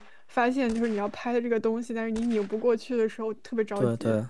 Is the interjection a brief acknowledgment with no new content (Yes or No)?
No